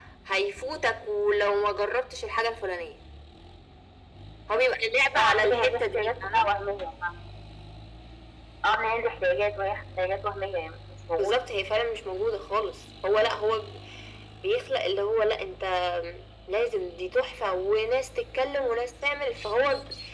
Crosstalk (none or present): present